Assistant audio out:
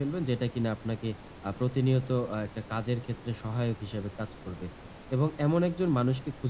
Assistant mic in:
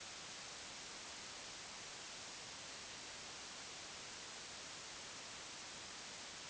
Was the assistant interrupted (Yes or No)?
No